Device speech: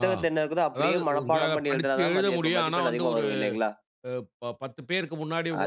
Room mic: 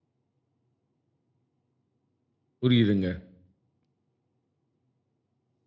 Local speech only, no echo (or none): புரியிதுங்க.